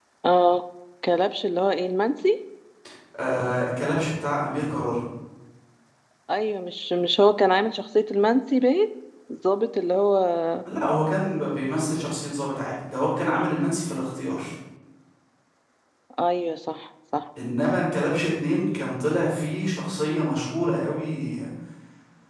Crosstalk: none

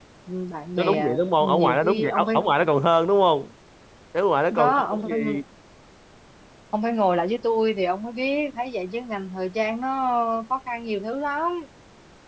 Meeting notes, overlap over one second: present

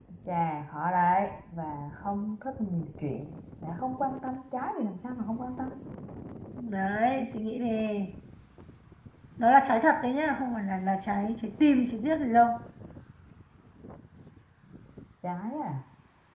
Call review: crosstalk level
none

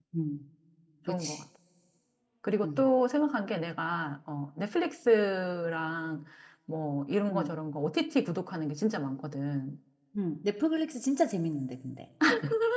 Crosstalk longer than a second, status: none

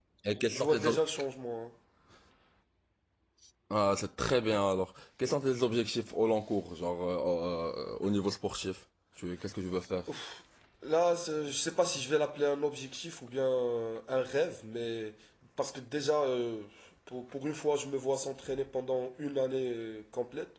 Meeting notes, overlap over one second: none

